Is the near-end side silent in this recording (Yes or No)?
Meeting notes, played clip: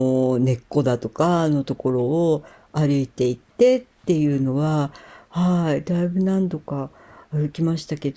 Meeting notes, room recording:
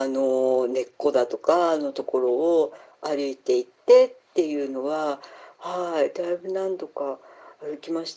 Yes